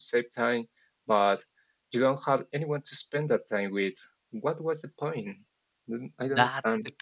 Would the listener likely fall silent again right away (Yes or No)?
No